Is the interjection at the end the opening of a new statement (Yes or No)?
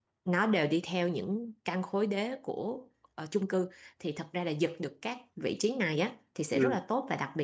No